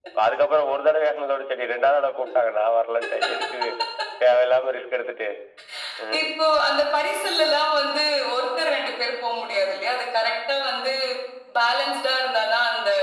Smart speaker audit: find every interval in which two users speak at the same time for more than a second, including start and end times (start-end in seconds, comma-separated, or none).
none